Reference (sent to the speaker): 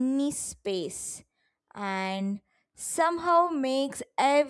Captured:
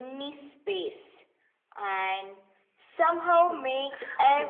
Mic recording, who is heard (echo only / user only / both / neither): both